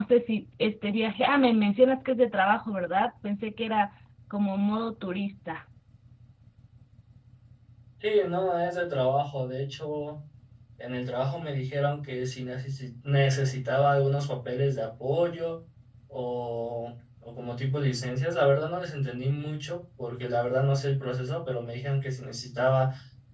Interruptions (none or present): none